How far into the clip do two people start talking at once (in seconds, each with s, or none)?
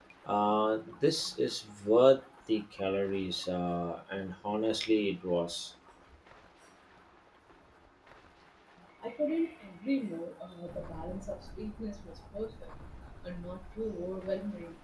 none